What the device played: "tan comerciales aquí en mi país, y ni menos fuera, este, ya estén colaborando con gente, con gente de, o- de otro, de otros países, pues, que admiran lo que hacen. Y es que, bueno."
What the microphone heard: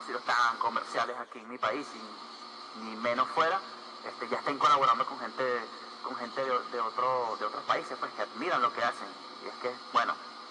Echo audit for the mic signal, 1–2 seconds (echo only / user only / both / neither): echo only